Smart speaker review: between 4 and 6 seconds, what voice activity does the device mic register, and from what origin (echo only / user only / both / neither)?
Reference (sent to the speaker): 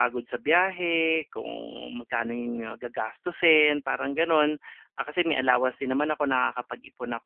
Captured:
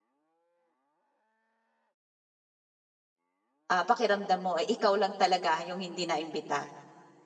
user only